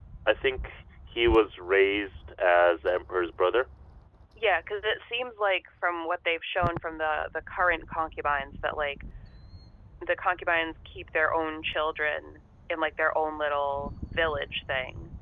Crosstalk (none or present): none